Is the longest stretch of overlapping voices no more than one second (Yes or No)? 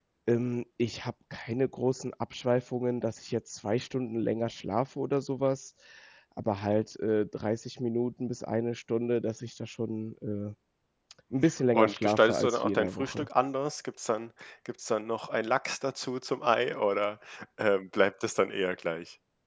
No